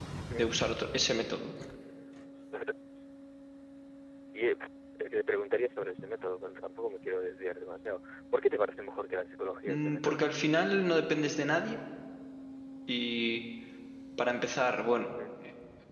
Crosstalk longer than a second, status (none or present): none